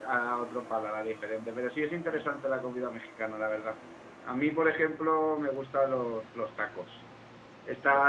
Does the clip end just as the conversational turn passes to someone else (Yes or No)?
No